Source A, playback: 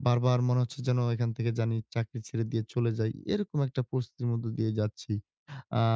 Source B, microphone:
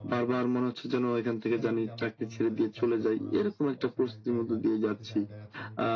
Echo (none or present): present